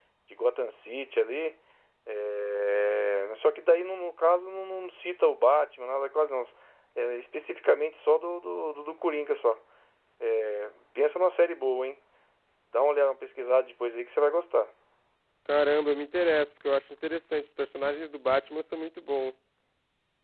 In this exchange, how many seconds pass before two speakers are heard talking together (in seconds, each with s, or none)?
none